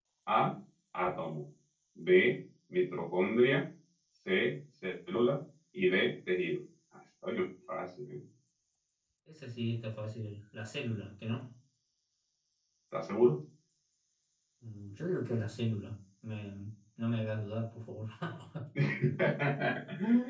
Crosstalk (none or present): none